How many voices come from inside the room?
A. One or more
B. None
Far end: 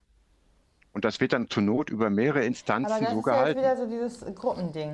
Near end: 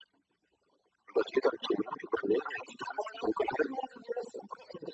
B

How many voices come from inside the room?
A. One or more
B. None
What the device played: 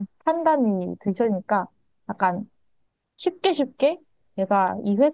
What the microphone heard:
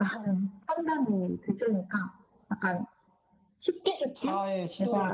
A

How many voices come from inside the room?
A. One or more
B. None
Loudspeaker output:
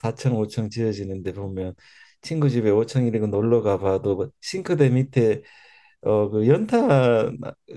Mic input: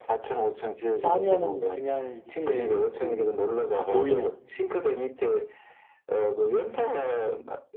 A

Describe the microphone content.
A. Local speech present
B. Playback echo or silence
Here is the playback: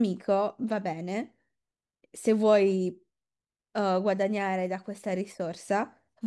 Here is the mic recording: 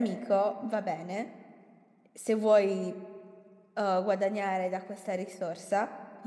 B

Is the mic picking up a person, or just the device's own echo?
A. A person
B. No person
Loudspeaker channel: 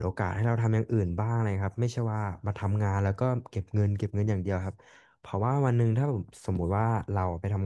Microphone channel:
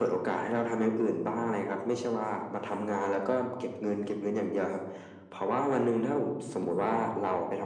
B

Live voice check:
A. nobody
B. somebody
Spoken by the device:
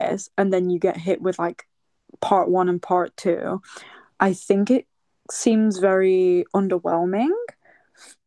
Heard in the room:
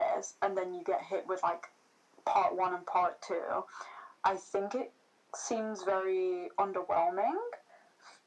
A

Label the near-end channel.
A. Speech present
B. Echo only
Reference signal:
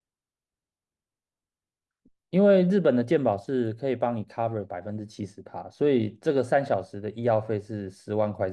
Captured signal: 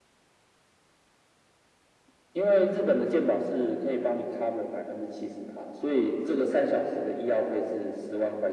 B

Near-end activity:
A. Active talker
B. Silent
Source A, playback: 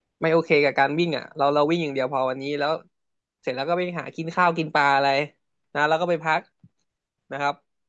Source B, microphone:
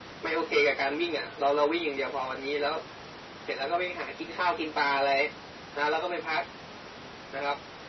B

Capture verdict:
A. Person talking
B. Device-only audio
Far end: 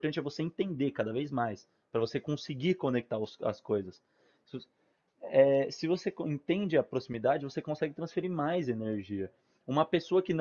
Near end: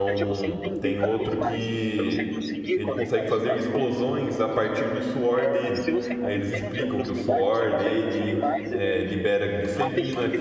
A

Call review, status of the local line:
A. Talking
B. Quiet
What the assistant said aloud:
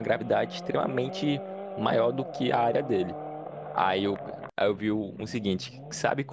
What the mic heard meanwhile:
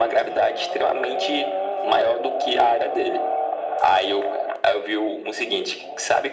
B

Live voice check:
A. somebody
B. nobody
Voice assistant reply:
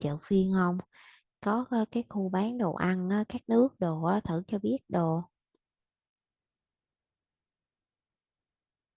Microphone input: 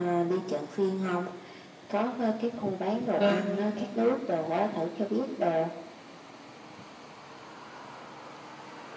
A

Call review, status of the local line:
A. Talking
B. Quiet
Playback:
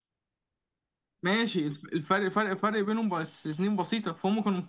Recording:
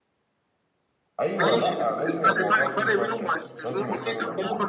A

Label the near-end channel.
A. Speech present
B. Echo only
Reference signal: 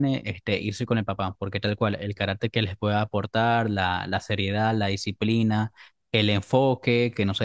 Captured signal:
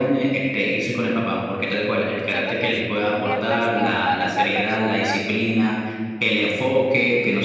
A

